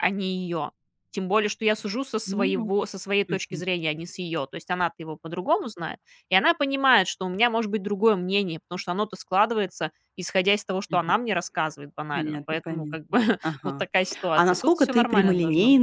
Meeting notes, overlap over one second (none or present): present